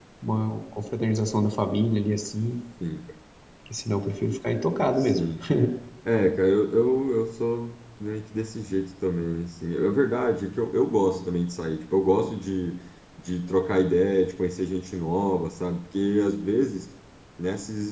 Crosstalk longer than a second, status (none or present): none